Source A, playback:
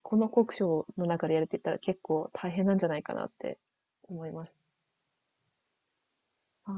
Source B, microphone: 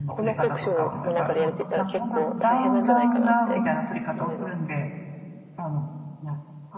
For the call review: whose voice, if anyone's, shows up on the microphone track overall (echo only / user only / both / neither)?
both